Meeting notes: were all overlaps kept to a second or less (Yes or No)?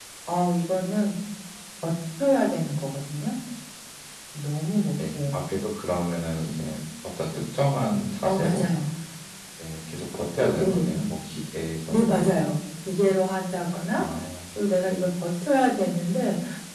Yes